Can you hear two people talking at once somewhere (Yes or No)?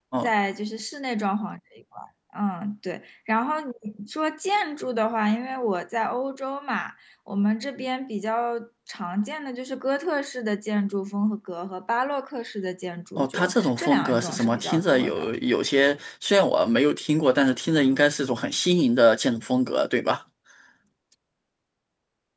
Yes